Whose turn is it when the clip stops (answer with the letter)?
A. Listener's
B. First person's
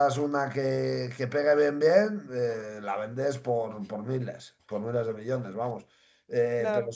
B